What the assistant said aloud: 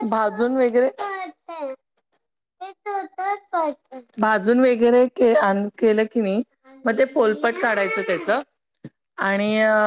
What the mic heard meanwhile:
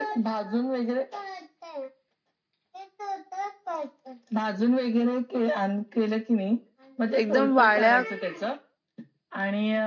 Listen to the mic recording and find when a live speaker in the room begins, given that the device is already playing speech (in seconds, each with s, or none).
7.2 s